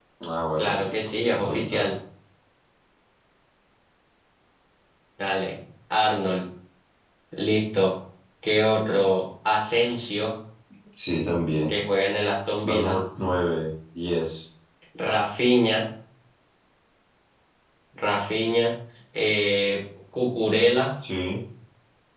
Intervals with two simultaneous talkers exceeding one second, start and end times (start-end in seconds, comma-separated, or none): 0.6-1.9